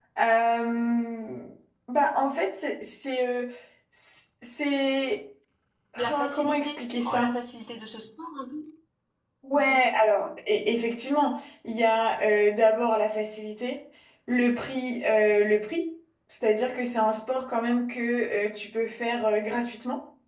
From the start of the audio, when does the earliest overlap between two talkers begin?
6.0 s

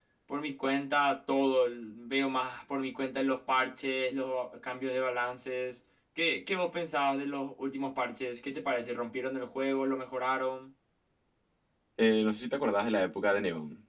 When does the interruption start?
none

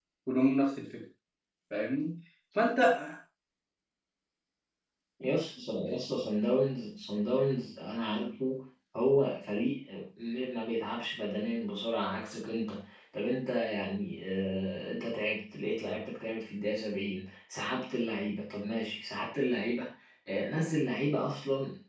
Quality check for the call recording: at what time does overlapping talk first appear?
none

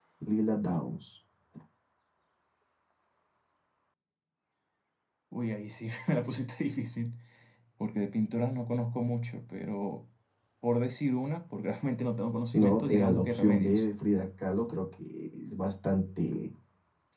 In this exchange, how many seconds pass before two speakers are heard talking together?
12.5 s

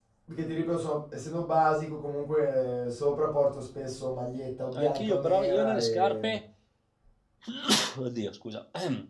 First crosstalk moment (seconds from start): 4.7 s

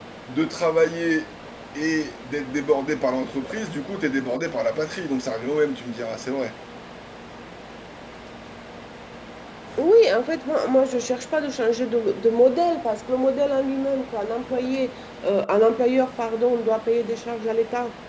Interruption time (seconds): none

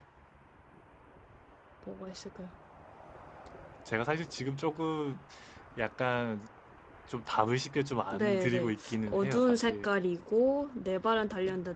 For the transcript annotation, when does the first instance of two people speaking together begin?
8.1 s

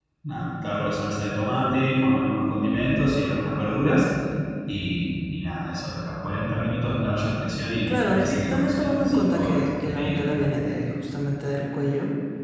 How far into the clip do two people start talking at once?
7.9 s

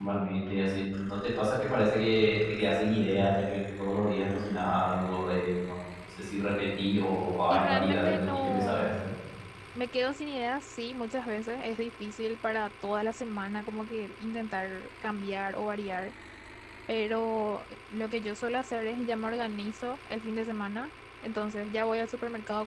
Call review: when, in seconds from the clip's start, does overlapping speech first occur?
7.5 s

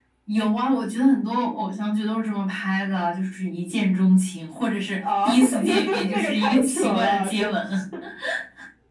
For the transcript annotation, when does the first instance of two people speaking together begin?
5.0 s

